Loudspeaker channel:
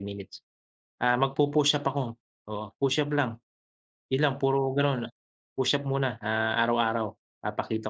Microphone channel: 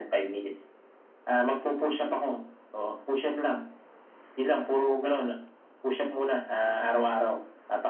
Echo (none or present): present